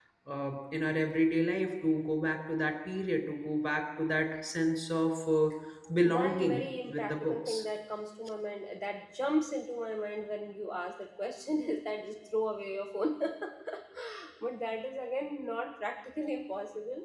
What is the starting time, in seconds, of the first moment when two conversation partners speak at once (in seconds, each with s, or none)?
6.0 s